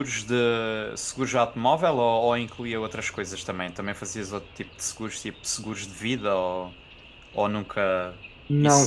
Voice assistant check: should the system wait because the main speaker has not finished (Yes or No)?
No